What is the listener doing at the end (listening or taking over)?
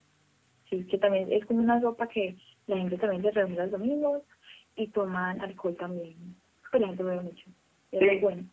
taking over